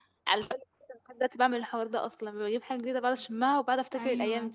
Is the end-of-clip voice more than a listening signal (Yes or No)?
Yes